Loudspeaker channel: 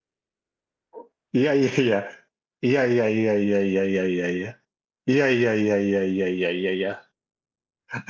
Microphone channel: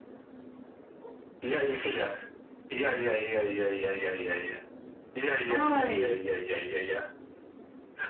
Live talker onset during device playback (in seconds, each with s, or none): 5.5 s